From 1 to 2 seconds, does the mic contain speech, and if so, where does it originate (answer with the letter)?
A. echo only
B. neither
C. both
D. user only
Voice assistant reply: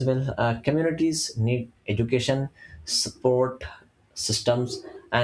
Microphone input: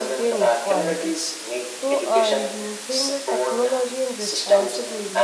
C